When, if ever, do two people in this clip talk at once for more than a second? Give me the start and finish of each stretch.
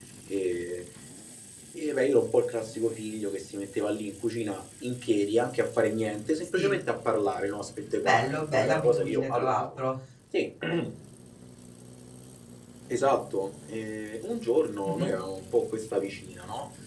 8.0-9.8

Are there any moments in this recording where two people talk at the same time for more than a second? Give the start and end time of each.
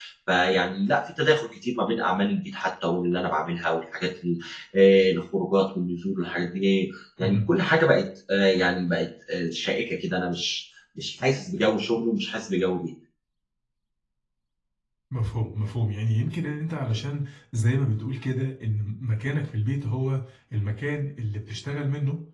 none

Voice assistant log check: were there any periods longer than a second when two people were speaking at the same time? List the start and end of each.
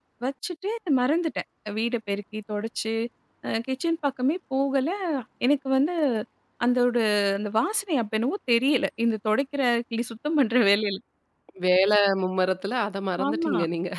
none

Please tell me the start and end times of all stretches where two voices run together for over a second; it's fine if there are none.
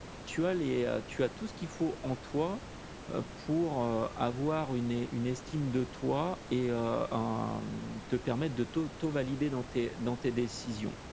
none

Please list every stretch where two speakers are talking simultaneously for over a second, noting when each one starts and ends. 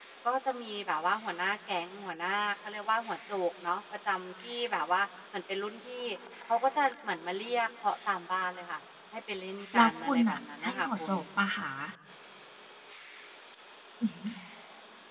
9.7-11.2

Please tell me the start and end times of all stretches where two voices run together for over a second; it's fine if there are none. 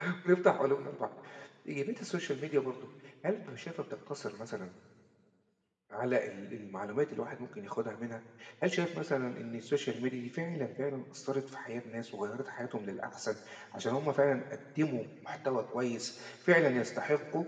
none

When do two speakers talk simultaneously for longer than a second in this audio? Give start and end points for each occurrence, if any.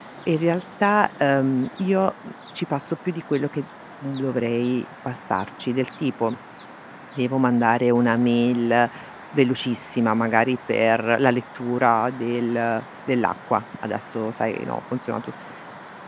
none

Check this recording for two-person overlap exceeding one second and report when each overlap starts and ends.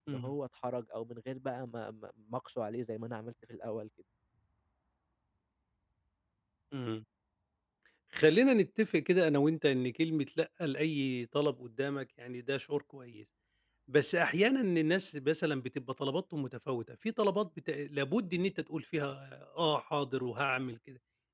none

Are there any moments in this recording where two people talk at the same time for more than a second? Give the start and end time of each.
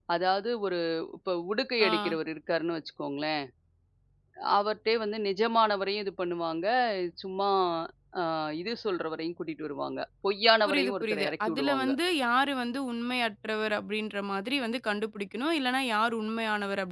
10.7-11.9

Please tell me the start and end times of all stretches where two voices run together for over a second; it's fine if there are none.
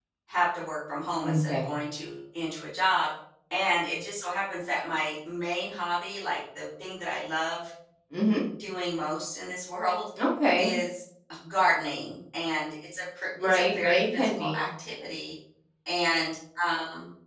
13.4-14.6

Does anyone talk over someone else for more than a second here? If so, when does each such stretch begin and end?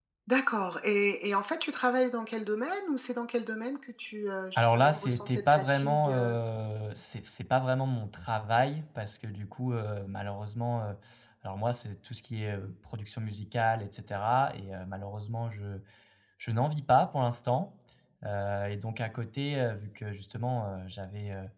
4.6-6.4

